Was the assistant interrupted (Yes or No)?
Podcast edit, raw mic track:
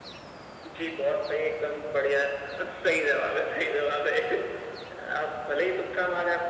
No